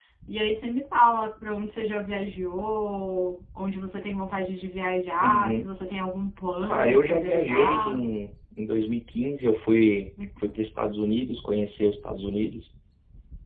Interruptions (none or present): present